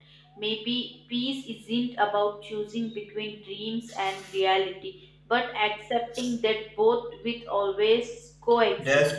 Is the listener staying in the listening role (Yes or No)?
No